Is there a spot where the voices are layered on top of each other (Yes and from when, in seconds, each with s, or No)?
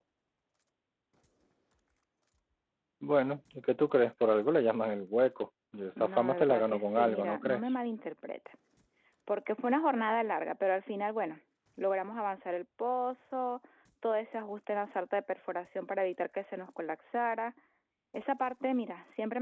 Yes, from 6.0 s